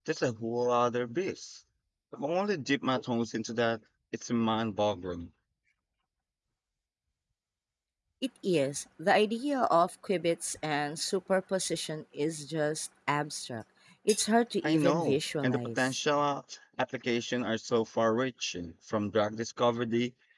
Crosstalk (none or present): present